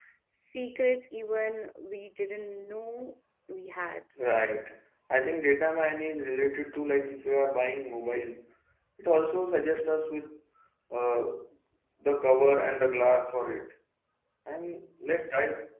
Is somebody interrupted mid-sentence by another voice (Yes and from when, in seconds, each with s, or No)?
No